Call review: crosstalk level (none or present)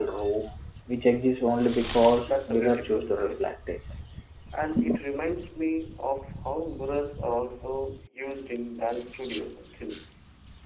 present